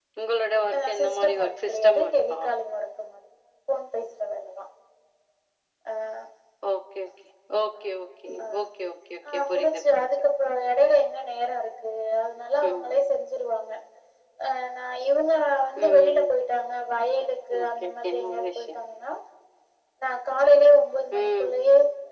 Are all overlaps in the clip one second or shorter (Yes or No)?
No